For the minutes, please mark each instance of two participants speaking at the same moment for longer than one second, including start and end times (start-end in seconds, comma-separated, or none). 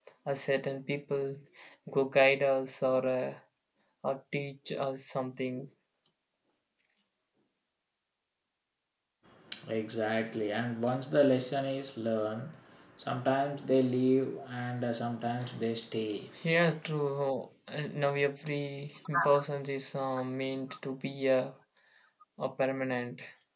none